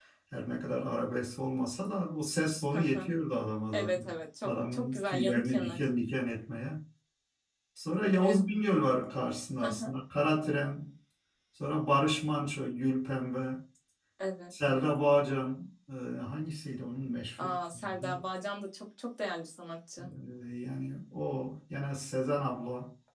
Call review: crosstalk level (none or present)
present